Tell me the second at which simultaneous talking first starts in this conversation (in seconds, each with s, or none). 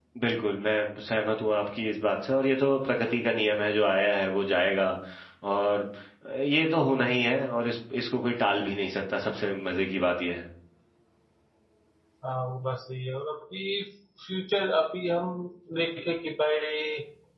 none